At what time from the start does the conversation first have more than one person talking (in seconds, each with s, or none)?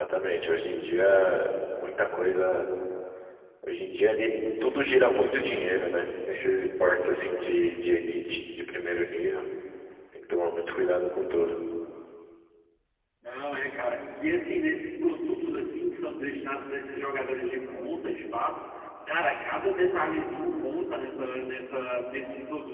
none